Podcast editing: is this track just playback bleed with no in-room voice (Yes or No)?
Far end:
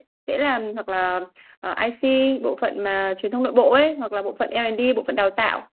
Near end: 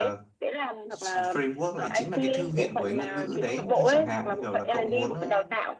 No